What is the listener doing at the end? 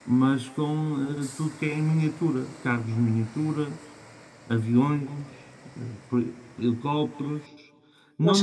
listening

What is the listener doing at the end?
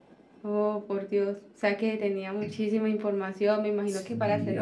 taking over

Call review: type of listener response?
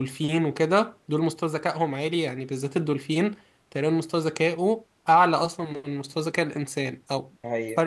listening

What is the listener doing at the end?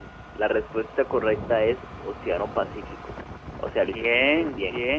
taking over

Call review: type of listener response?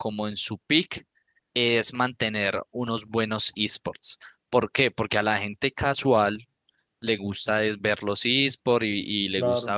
listening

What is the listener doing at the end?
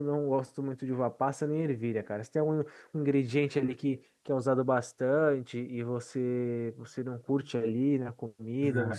taking over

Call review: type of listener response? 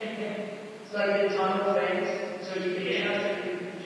listening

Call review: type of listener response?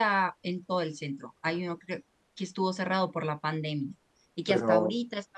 listening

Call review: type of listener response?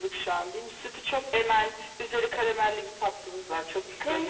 taking over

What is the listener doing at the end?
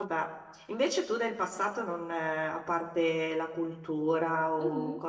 listening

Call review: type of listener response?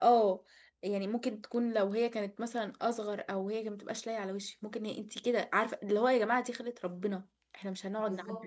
taking over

